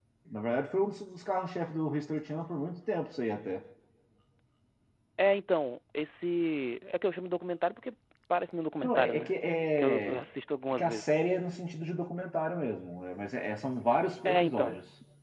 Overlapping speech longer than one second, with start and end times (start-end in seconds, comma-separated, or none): none